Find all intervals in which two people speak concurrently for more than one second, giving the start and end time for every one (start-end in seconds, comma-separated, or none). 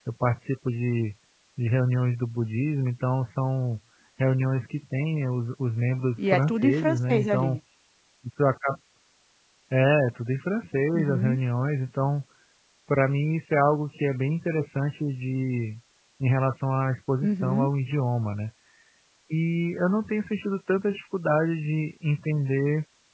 6.2-7.5